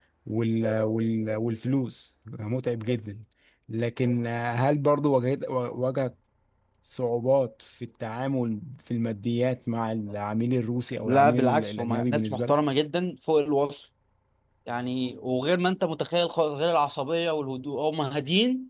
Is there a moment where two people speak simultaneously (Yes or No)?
Yes